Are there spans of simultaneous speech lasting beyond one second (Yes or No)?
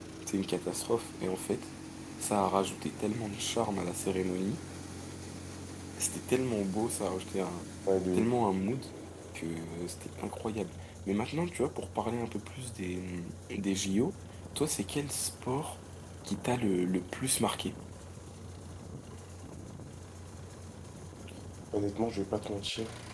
No